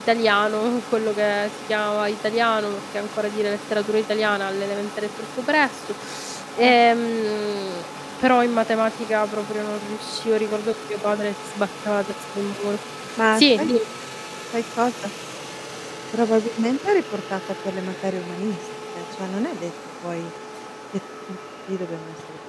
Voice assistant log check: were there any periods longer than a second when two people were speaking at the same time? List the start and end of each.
none

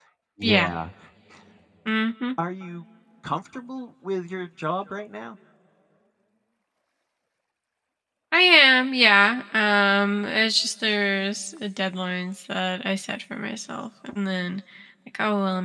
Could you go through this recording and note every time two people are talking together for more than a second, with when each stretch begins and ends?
none

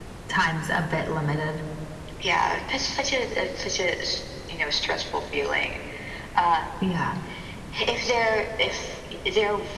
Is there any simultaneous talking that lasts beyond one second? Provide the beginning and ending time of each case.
none

